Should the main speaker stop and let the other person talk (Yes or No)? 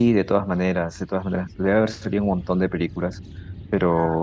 Yes